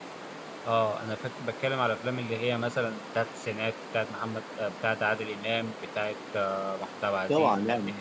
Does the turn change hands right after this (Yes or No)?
Yes